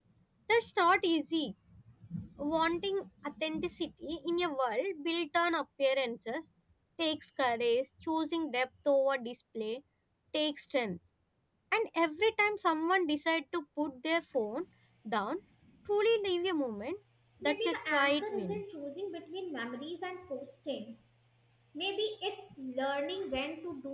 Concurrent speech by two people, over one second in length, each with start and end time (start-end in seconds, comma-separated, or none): 17.4-18.6